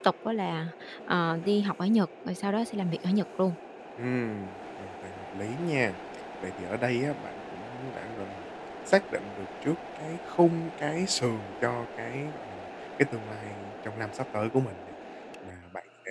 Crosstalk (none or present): none